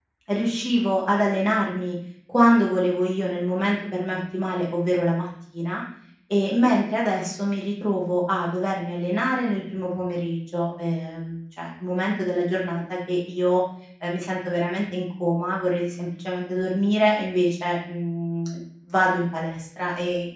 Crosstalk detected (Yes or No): No